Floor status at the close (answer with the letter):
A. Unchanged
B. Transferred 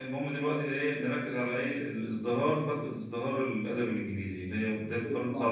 B